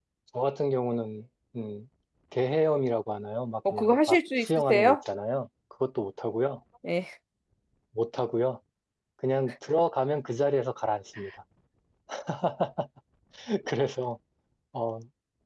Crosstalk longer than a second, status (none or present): present